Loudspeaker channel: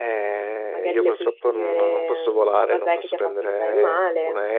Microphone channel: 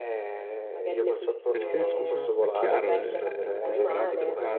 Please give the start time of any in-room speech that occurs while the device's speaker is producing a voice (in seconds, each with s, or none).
1.5 s